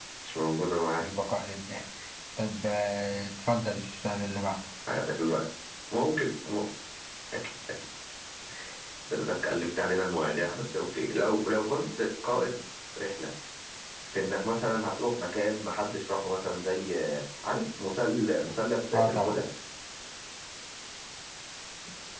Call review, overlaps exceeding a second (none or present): none